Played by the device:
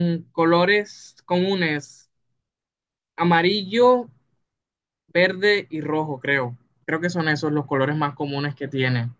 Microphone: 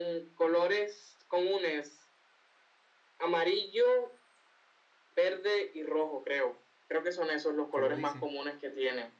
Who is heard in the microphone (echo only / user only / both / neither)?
both